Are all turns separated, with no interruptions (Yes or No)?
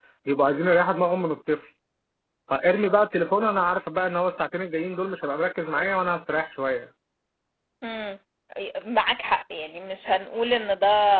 Yes